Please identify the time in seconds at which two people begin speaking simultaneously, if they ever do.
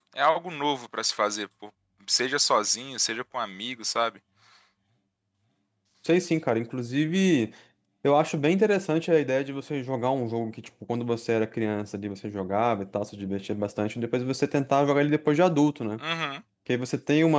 none

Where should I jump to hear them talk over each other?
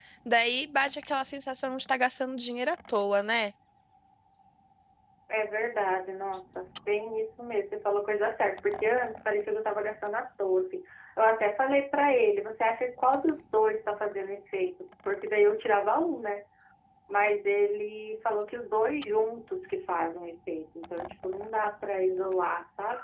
none

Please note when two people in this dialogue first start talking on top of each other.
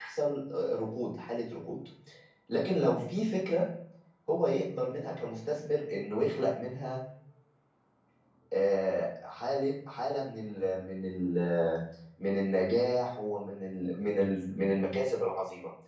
none

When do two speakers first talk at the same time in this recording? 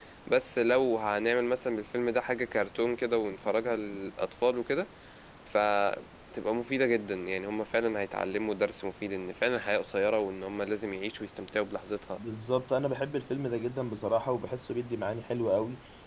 none

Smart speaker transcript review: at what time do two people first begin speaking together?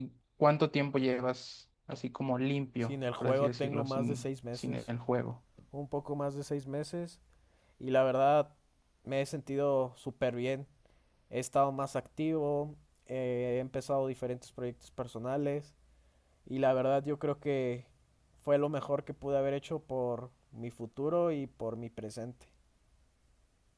3 s

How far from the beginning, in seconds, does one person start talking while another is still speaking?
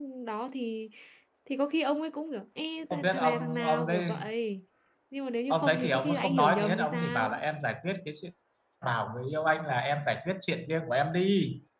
3 s

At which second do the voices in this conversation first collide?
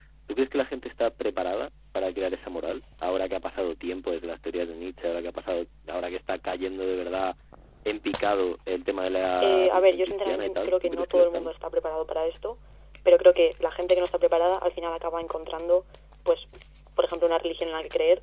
9 s

